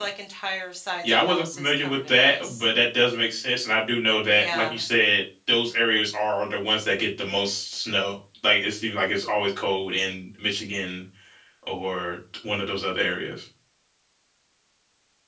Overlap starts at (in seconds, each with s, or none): 1.0 s